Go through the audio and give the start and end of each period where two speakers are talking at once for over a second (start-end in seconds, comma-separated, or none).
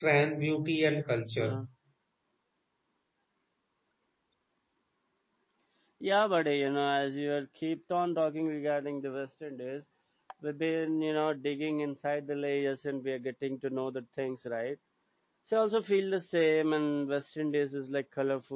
none